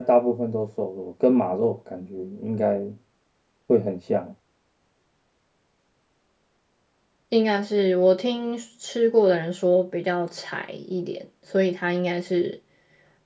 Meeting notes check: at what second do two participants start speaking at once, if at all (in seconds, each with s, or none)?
none